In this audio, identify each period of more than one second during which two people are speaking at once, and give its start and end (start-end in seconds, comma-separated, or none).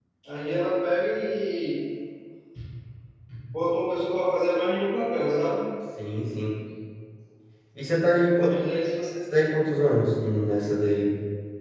none